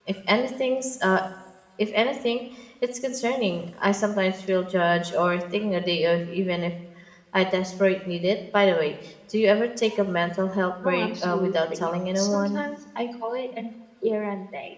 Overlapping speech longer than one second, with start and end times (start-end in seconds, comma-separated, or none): 10.8-12.7